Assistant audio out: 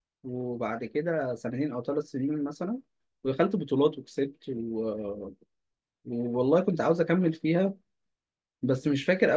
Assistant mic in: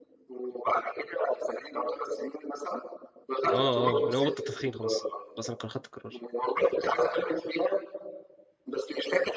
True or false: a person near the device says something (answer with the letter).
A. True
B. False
A